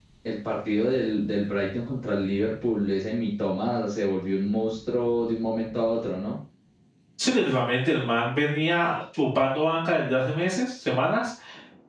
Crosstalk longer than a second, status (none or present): none